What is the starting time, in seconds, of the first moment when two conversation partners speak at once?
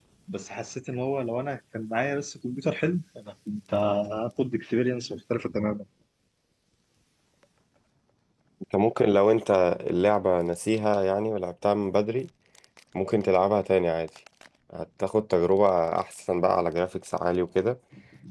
none

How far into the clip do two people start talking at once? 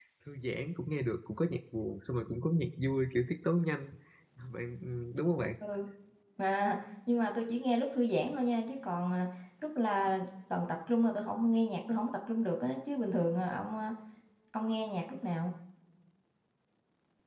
none

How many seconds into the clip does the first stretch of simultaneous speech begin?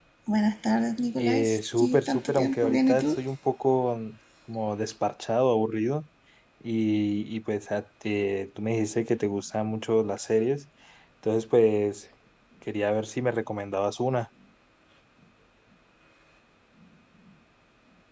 1.1 s

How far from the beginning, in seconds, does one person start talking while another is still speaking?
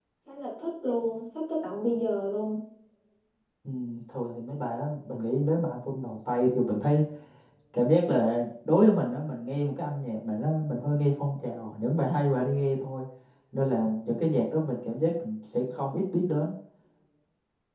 none

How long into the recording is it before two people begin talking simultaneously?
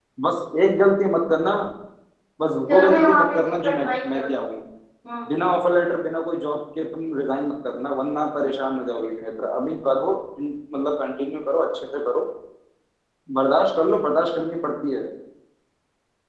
2.7 s

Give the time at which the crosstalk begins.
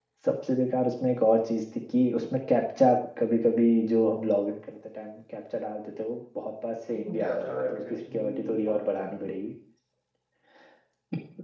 7.1 s

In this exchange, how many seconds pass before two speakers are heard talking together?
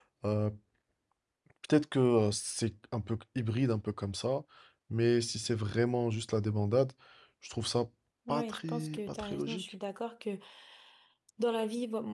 8.3 s

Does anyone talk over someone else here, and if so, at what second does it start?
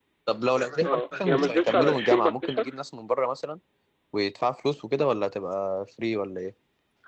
0.8 s

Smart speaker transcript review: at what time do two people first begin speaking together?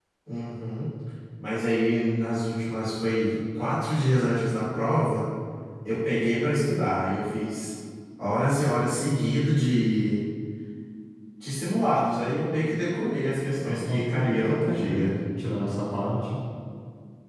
13.6 s

